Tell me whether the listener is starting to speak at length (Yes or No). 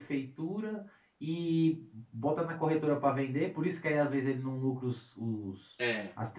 No